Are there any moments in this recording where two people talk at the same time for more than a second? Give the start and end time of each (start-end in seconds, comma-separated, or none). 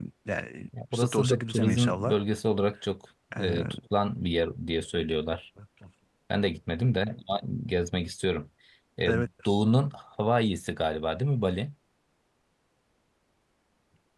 0.9-2.1